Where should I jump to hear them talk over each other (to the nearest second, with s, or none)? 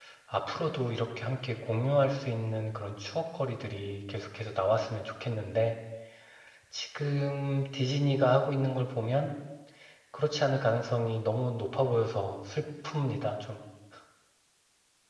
none